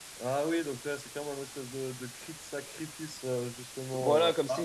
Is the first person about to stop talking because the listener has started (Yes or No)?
Yes